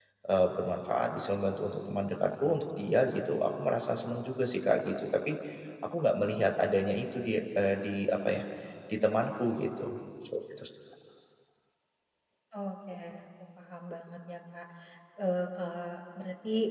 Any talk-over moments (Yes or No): No